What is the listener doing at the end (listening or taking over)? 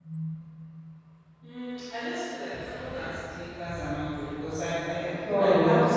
listening